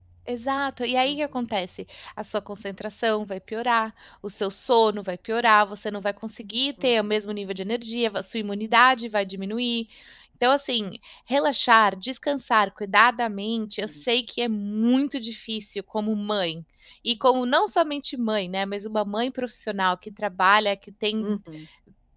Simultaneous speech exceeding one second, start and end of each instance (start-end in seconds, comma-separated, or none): none